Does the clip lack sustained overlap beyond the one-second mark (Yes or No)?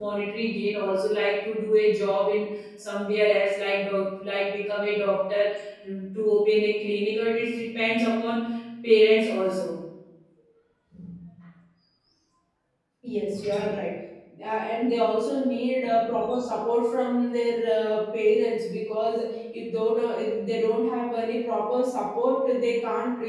Yes